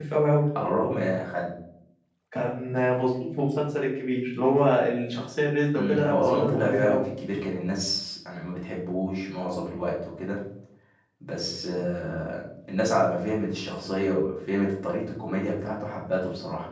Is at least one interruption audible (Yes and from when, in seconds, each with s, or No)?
Yes, from 5.7 s